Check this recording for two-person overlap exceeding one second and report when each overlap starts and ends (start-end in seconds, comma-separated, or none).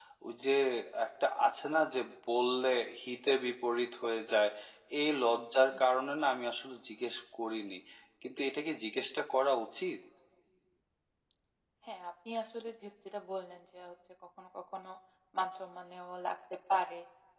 none